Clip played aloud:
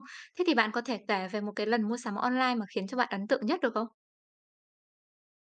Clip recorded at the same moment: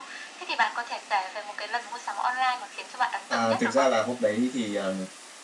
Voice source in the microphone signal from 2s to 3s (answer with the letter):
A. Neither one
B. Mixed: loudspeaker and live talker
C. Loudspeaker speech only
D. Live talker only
C